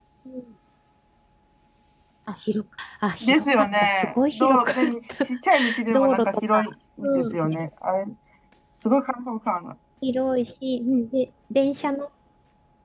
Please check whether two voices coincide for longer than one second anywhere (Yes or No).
Yes